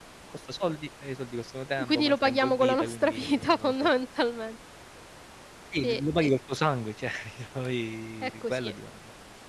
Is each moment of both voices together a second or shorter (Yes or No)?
No